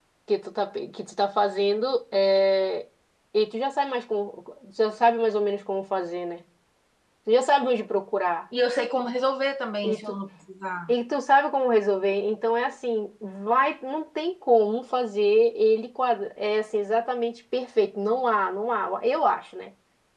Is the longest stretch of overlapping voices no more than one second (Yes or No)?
Yes